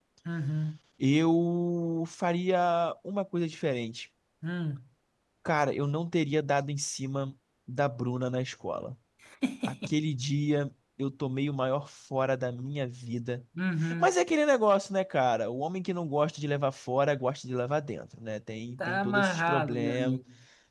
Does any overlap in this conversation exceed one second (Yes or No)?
Yes